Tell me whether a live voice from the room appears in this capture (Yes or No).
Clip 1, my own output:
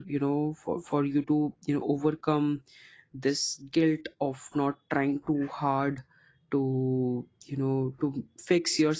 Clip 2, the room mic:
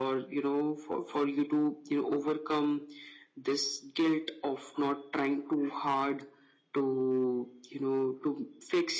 No